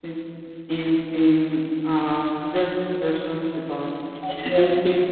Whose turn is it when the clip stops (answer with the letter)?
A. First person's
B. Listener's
A